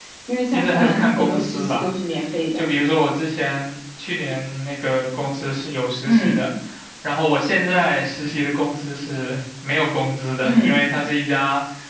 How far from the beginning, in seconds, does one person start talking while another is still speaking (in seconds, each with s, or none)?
0.5 s